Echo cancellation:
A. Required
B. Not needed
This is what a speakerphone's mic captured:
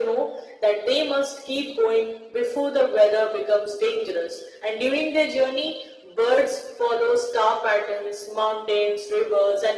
A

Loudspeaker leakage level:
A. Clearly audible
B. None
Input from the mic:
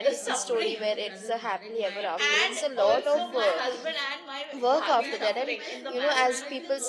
A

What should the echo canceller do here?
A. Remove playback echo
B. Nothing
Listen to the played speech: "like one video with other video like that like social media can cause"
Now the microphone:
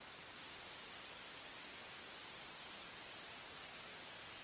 B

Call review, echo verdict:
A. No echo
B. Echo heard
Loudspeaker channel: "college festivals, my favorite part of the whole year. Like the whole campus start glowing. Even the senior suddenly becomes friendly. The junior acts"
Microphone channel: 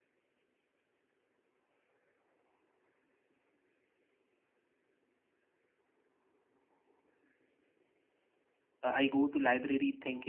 A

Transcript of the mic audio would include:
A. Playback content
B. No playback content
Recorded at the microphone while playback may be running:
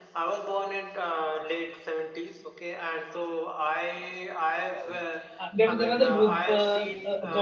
A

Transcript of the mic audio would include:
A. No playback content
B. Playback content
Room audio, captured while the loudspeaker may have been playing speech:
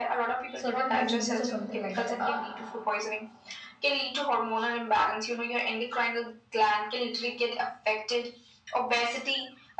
B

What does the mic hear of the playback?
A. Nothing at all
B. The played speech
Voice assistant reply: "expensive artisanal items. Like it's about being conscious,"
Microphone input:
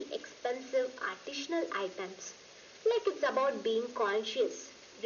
B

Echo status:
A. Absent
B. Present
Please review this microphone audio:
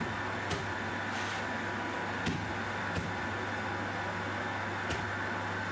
A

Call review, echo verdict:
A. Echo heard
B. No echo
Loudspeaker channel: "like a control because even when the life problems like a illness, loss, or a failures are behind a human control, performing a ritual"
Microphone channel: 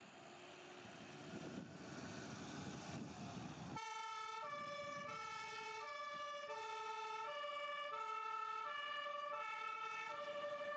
B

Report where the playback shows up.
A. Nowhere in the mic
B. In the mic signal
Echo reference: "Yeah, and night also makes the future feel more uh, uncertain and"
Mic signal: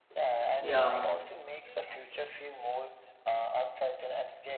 B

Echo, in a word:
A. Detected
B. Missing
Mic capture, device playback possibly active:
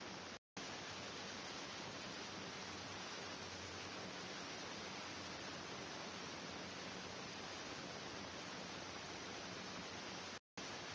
B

